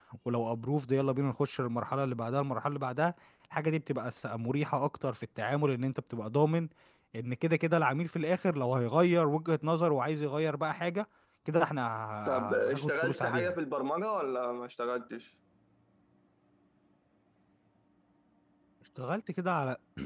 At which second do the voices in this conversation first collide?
12.3 s

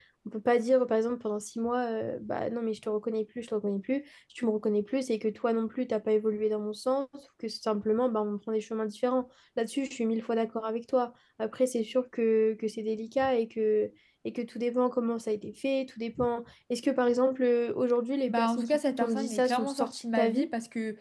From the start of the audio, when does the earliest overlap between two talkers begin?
18.3 s

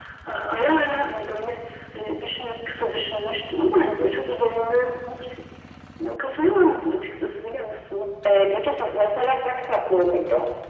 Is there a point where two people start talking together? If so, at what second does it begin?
none

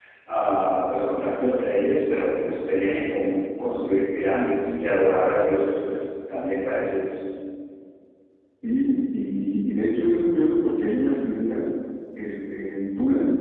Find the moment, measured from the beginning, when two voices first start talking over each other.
none

